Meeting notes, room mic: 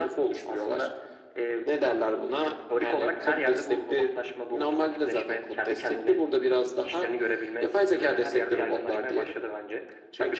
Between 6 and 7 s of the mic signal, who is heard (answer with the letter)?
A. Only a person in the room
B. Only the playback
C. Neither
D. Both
B